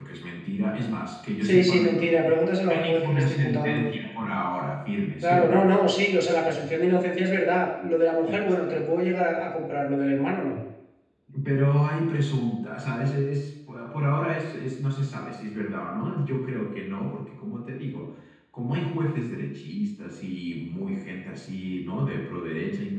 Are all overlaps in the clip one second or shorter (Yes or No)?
No